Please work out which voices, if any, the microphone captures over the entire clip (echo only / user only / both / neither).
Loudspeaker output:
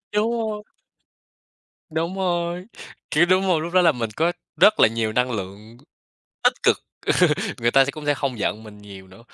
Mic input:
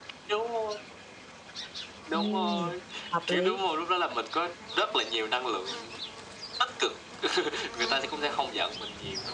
both